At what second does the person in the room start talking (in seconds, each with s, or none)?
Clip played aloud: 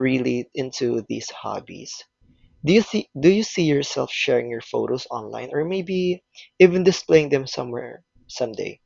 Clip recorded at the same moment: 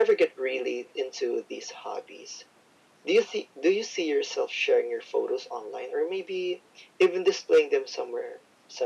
none